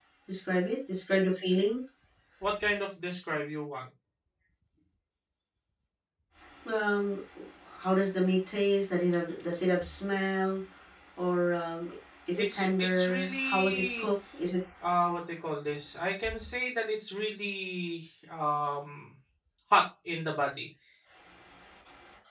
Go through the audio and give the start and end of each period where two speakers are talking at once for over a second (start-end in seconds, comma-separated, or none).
12.4-14.1